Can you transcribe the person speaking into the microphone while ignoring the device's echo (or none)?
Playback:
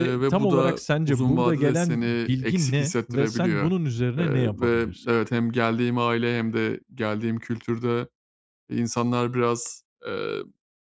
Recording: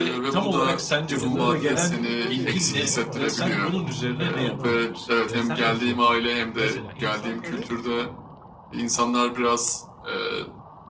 Ya da ben bunu böyle yapıyorum ama sana niye uymadığını anlamadım. Eee, sen nasıl yapardın?" Mesela insanları